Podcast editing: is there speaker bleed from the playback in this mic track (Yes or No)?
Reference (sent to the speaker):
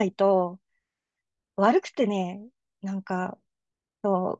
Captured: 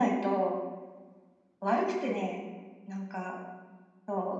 Yes